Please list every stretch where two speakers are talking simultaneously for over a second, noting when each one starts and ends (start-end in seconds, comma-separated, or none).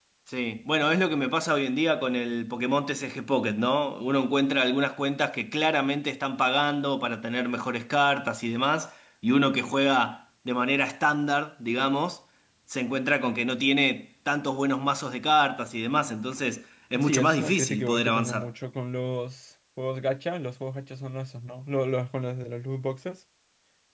17.0-18.5